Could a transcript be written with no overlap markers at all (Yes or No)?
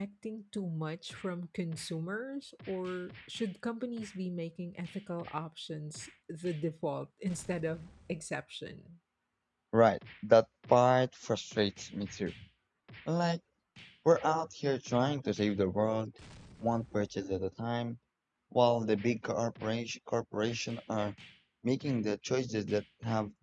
Yes